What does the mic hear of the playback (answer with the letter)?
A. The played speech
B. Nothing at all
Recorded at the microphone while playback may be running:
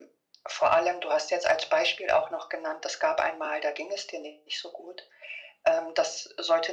A